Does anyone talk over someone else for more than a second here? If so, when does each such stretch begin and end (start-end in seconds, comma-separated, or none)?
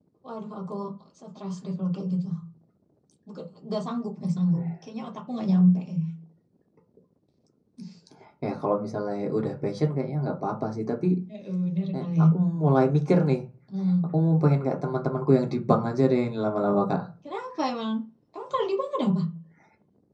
none